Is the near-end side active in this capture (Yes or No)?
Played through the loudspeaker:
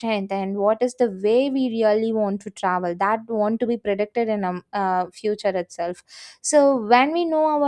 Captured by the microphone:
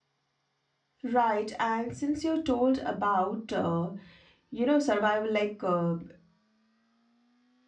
Yes